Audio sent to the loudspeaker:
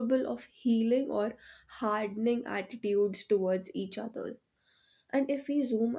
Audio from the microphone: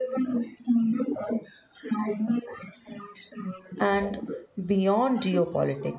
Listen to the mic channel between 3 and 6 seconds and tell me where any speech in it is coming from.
both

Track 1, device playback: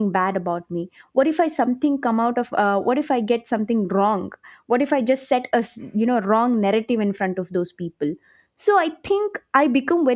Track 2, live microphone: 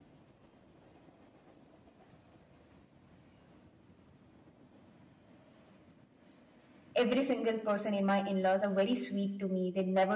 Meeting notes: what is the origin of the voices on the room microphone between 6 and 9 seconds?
user only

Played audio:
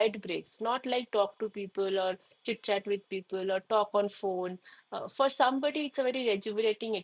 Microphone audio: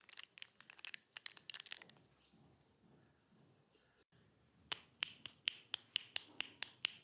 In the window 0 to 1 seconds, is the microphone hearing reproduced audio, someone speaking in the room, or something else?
neither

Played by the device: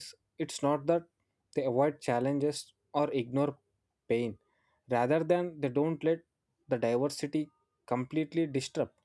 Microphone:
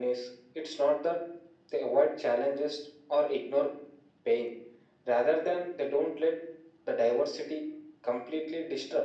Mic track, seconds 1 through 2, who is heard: echo only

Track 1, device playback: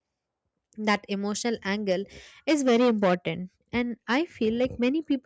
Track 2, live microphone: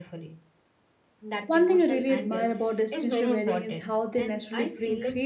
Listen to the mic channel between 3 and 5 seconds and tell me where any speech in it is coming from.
both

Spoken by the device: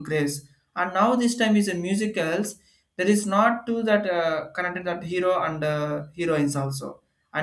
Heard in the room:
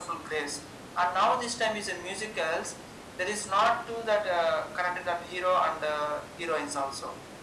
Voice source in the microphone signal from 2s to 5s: echo only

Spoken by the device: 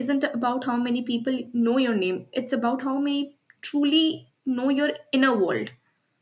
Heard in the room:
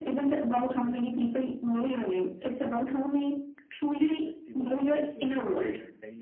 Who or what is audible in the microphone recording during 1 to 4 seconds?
both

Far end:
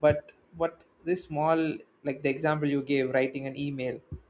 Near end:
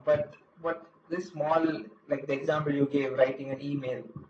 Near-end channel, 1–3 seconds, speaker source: echo only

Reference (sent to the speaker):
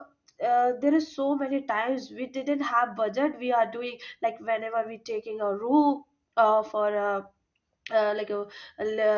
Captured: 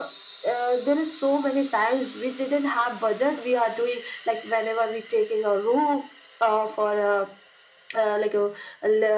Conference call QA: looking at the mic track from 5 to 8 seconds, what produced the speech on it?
echo only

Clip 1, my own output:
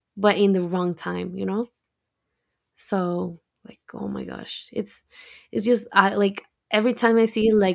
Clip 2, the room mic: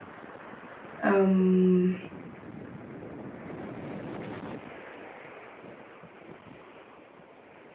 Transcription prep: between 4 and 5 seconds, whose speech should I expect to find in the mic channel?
neither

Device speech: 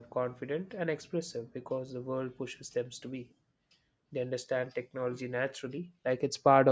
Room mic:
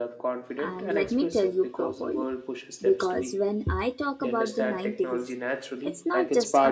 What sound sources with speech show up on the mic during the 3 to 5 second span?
both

